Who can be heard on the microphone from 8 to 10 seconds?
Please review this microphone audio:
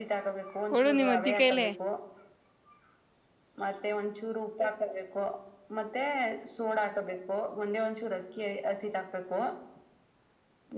echo only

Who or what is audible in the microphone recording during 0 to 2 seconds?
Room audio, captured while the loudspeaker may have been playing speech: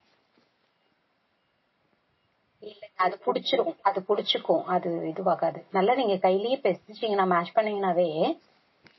neither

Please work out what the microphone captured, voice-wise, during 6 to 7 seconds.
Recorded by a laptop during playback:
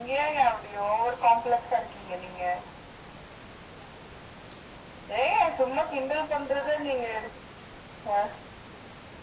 echo only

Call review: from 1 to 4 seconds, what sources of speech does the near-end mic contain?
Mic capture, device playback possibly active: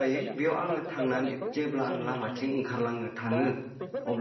both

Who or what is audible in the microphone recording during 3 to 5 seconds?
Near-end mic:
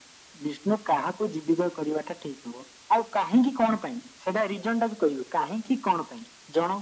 echo only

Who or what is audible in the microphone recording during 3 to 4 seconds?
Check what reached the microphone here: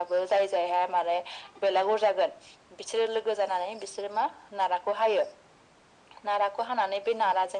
echo only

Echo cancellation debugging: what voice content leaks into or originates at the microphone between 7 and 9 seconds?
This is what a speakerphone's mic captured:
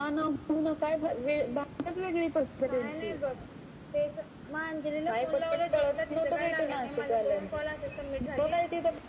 echo only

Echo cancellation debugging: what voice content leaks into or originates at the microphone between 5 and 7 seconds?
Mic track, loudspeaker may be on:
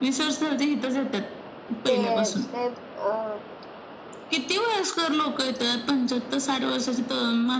echo only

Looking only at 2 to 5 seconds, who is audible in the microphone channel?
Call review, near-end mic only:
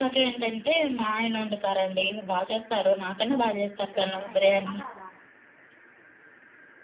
both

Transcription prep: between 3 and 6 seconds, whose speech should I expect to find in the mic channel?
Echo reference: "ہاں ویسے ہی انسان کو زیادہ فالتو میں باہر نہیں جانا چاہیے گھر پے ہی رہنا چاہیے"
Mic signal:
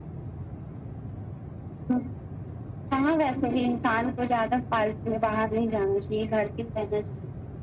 echo only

